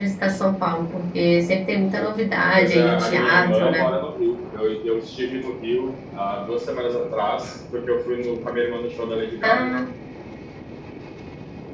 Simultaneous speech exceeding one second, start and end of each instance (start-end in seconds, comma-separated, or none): 2.6-3.9